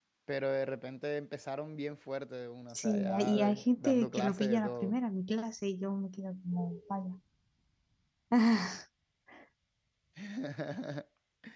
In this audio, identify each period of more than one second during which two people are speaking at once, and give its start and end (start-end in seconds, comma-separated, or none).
2.8-5.0